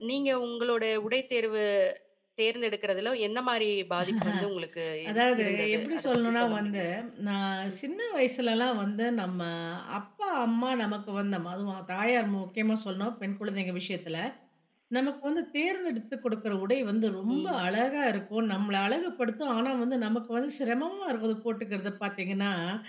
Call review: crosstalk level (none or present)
present